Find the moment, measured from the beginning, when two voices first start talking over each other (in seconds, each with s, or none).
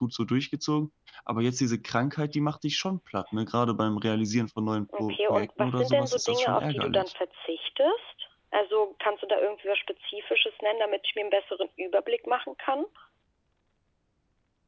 4.9 s